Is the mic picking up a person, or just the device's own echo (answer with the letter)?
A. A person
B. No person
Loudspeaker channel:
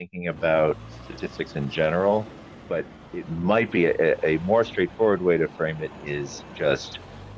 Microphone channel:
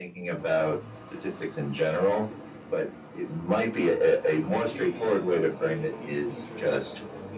A